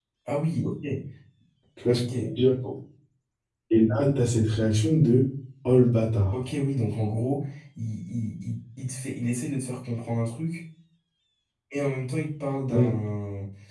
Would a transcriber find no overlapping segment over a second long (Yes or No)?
Yes